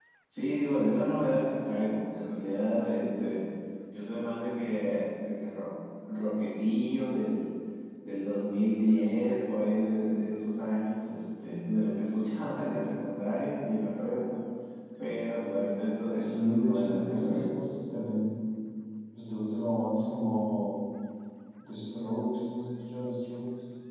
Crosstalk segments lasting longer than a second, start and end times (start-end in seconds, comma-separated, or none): 16.2-17.5